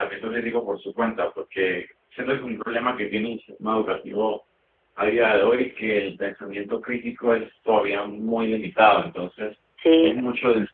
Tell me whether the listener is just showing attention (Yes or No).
Yes